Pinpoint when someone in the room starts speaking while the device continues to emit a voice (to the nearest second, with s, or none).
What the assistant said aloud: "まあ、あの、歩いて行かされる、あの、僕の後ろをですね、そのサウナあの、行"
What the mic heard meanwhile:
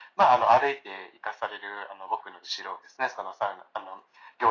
none